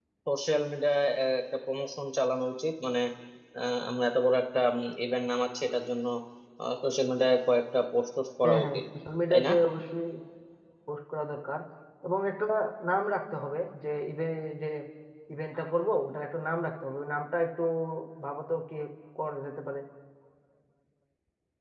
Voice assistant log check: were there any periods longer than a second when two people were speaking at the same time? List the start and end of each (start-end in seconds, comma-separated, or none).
none